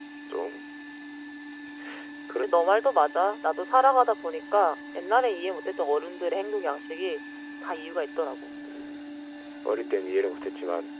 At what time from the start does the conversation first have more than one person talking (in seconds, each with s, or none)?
none